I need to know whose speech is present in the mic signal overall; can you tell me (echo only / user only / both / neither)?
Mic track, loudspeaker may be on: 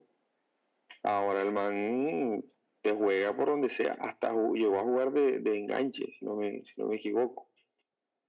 echo only